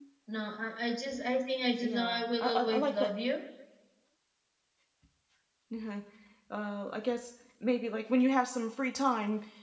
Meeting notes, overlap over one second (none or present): present